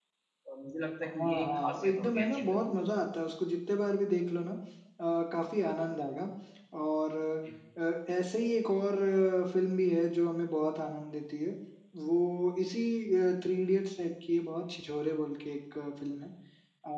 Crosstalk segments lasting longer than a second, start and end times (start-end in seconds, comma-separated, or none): 1.1-2.9